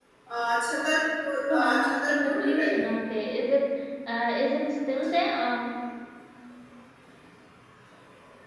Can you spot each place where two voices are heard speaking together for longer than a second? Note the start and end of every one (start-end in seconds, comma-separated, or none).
1.5-2.8